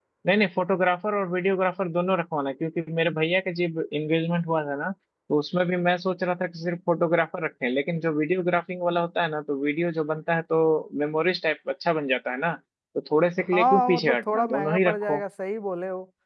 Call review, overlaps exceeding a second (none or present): present